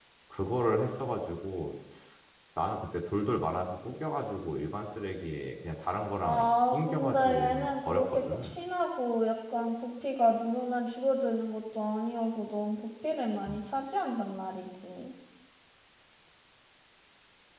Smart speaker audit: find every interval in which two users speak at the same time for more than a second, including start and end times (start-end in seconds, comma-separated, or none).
6.2-8.5